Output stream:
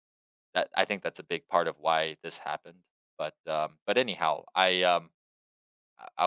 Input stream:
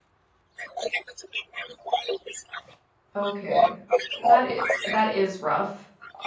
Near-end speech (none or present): present